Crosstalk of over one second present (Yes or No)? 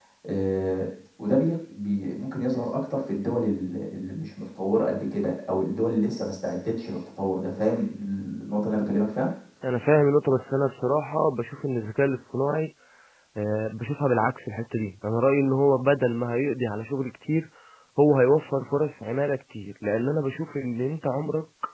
No